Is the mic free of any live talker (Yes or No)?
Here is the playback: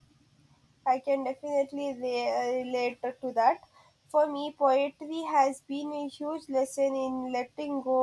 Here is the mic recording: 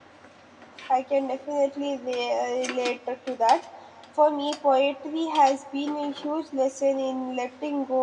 Yes